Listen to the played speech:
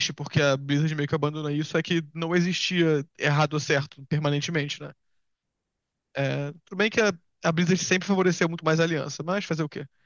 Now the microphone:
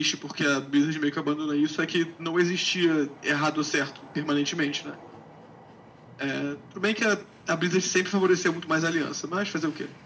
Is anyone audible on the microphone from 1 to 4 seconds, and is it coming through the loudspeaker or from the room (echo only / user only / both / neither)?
echo only